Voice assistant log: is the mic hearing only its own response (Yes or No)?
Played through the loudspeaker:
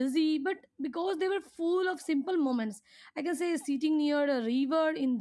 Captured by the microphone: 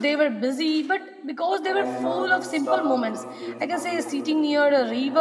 No